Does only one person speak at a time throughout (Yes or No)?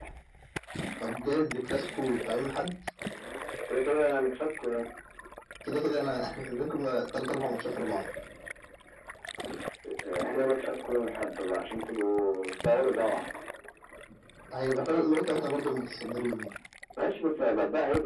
Yes